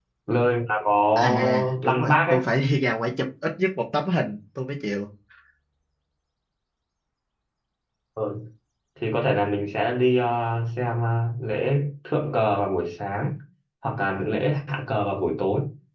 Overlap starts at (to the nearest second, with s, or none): 1 s